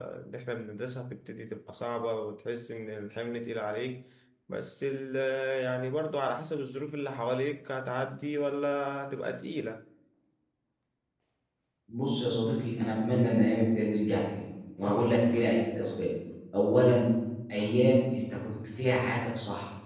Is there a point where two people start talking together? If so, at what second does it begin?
none

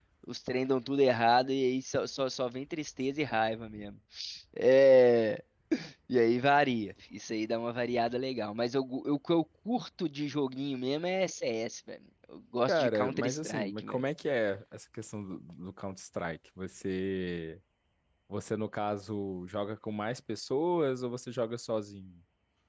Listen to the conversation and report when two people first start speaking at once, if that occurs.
13 s

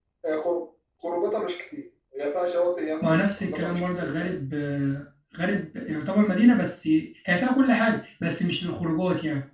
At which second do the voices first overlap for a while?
3 s

